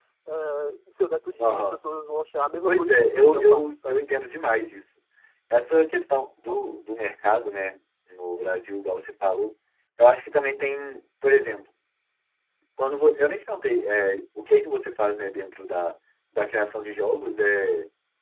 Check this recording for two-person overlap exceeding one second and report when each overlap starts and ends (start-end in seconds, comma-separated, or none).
2.7-4.0